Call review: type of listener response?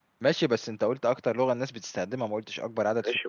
taking over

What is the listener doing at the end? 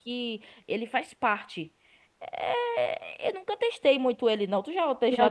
taking over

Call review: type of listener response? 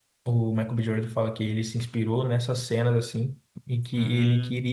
listening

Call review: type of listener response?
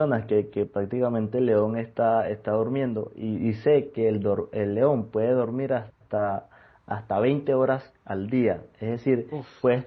listening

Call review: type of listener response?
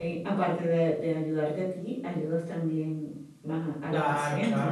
taking over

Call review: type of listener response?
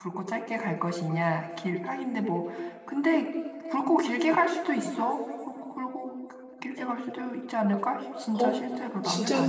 taking over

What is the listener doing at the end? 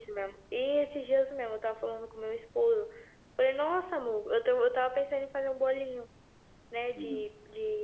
listening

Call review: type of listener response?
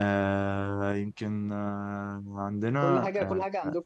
taking over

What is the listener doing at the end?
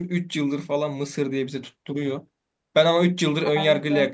listening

